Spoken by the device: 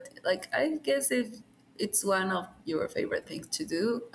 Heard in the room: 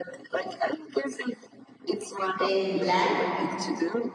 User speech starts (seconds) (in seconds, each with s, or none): 2.4 s